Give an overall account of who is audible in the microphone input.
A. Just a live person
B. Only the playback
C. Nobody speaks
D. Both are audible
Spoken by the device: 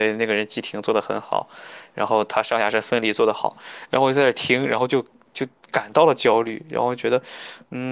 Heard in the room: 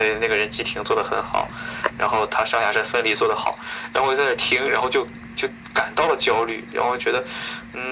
B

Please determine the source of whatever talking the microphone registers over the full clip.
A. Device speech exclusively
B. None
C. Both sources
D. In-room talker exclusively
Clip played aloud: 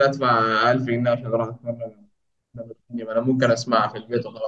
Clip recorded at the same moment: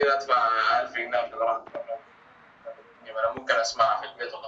A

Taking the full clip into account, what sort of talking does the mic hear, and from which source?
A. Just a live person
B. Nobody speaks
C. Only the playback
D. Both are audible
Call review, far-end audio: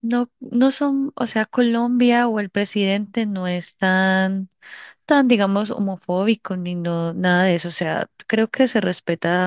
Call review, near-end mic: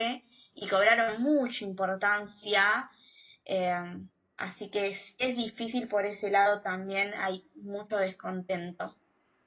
A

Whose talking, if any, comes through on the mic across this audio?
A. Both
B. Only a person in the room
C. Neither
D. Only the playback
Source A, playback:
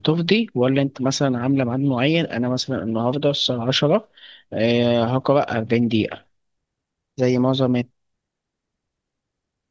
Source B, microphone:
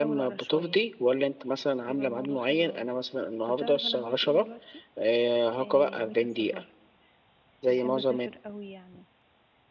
A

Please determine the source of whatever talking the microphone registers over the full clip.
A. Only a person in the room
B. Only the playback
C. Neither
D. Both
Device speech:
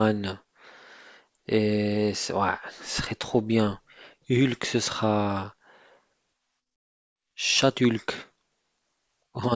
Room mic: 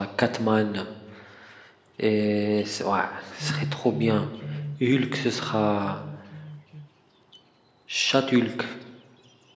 D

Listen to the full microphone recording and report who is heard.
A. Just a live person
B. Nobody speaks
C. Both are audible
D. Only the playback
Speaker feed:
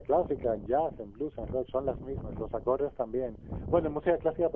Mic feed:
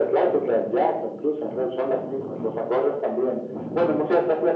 D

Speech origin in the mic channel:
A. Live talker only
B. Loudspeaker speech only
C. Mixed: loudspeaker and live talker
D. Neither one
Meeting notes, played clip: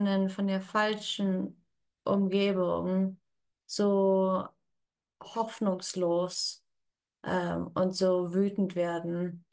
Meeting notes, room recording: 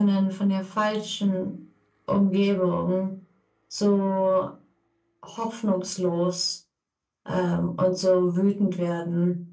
B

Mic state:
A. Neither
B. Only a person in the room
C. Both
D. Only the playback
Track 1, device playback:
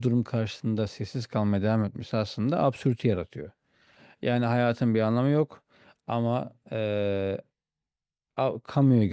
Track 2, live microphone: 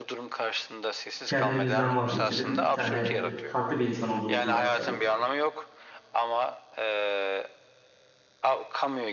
C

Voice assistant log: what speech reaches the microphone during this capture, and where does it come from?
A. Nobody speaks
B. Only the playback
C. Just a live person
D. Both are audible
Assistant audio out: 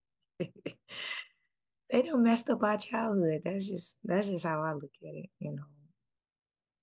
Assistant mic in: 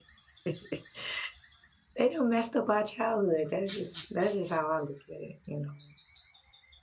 B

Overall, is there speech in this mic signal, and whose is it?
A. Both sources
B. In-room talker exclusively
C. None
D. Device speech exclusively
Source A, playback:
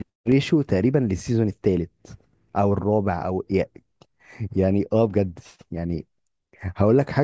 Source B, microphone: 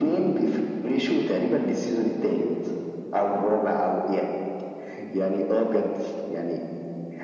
D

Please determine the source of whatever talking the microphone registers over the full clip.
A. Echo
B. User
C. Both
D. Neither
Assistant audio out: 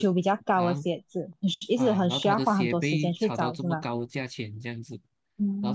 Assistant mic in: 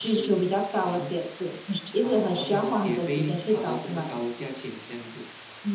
A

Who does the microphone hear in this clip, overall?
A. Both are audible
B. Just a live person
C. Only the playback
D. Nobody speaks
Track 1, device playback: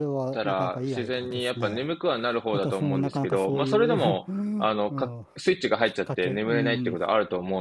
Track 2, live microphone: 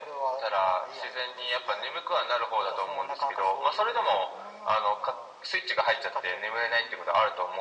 C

